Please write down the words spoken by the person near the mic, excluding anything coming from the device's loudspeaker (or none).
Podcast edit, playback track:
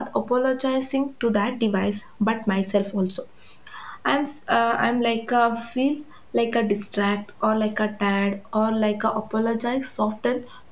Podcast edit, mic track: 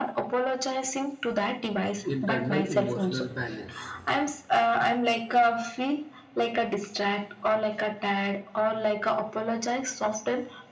internal emotional balance.